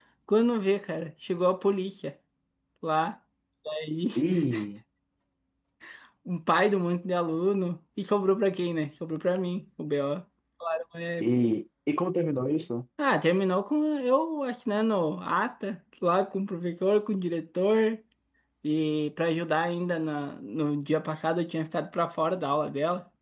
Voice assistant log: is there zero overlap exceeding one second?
Yes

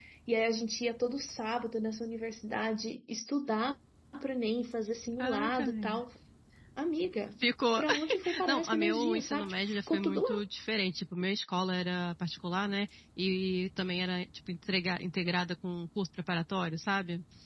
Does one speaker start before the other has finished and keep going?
Yes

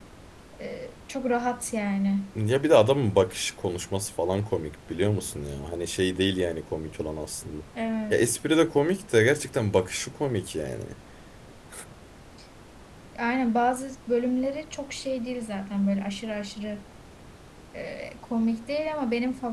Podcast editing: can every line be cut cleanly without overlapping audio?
Yes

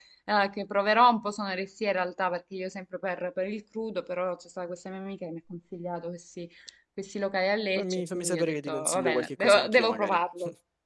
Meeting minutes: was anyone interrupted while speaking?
Yes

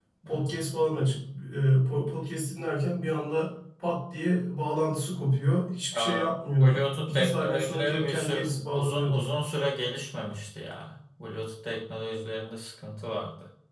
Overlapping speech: Yes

